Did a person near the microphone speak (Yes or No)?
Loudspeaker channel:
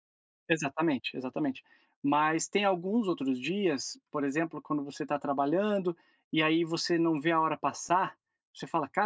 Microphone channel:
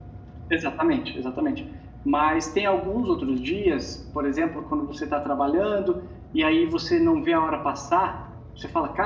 No